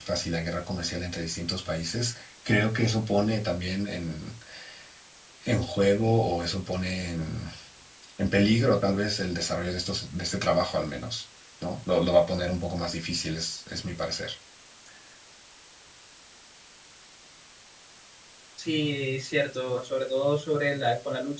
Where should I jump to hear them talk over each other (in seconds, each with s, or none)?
none